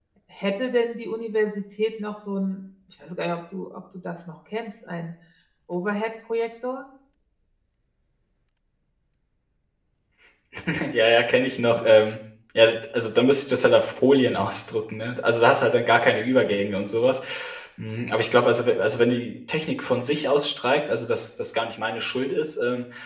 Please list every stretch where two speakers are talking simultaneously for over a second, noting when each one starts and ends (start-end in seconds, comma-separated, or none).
none